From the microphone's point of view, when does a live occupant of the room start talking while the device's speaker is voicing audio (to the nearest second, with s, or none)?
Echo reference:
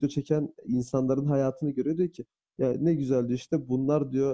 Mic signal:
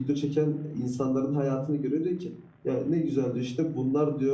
none